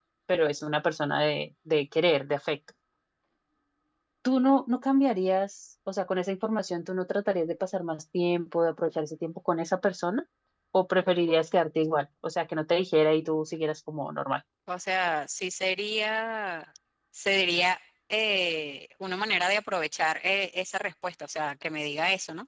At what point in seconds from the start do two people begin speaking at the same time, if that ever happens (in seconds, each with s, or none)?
none